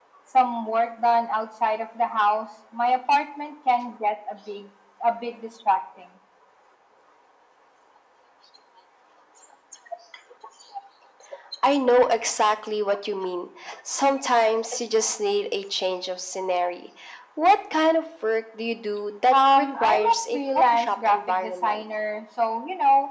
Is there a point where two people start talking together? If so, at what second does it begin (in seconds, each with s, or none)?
19.3 s